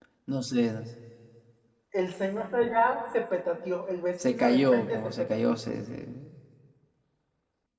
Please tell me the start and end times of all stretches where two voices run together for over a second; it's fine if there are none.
4.2-5.6

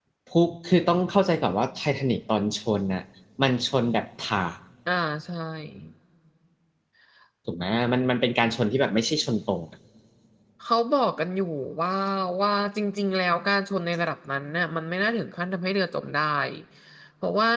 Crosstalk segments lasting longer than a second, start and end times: none

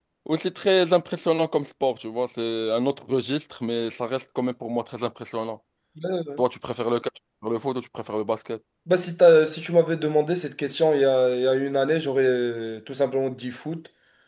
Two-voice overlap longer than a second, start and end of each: none

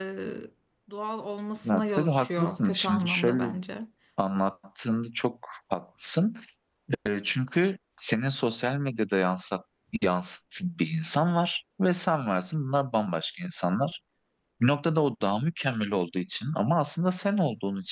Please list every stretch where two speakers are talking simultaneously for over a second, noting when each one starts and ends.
1.6-3.5

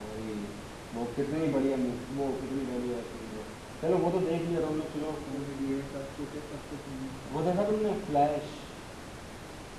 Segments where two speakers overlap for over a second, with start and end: none

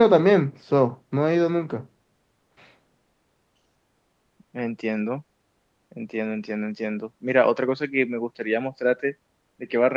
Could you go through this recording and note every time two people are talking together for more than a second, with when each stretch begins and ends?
none

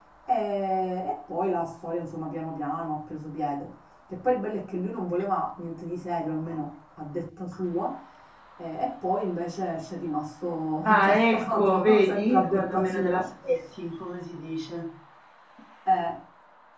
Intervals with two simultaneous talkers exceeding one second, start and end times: 10.8-13.3

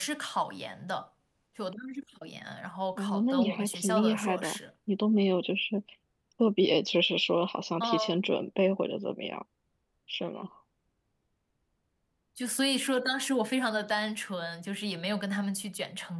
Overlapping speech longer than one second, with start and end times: 3.0-4.6

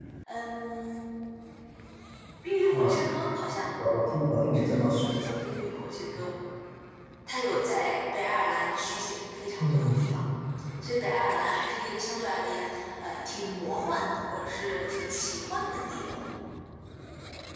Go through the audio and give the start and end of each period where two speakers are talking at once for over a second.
none

